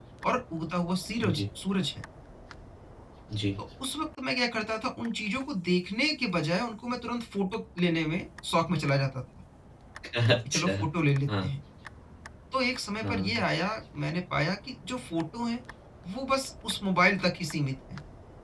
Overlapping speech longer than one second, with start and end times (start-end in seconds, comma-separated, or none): none